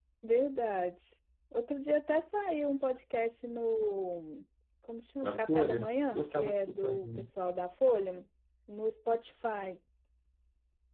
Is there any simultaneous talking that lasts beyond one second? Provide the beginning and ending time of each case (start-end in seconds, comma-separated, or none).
5.2-7.3